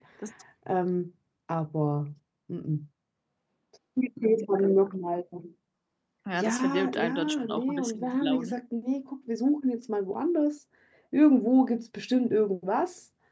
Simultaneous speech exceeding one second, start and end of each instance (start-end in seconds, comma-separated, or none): 6.3-8.6